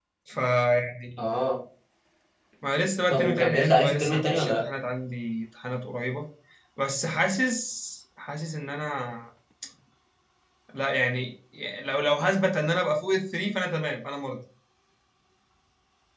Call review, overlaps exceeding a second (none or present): present